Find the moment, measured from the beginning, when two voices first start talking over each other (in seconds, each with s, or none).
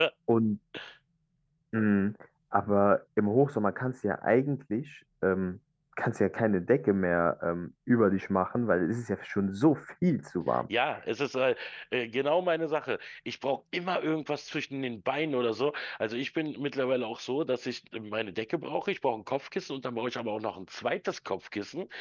none